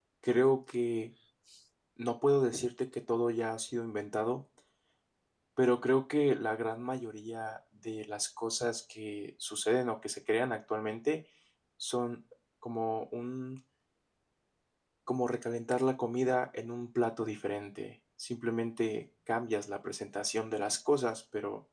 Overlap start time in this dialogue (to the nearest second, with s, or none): none